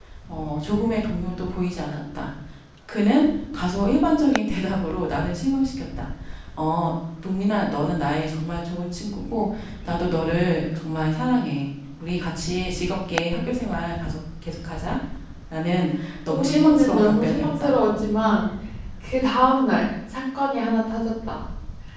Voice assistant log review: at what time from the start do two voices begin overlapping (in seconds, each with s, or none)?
16.3 s